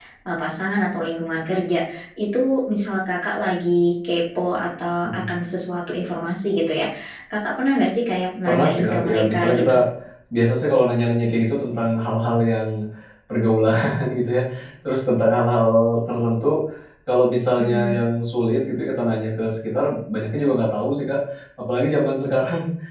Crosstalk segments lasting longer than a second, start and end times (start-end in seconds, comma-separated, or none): 8.4-9.7